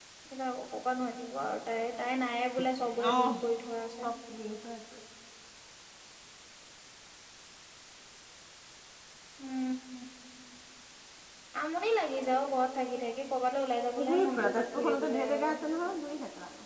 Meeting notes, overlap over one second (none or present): present